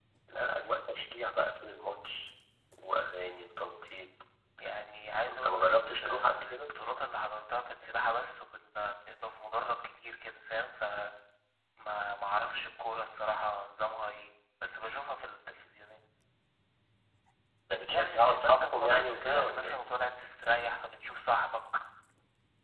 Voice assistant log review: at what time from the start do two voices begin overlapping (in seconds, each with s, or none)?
5.3 s